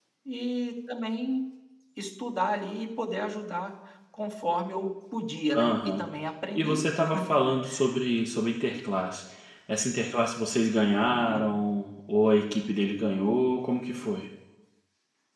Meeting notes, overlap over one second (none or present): none